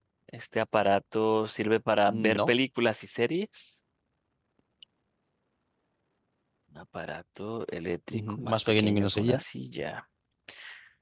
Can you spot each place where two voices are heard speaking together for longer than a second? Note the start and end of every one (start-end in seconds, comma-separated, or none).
8.1-9.4